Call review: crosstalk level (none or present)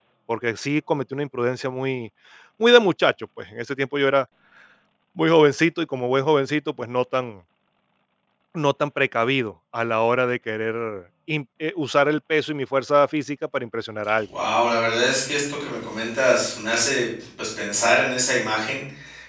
none